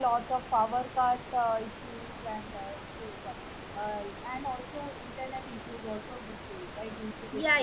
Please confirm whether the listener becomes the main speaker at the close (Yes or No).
Yes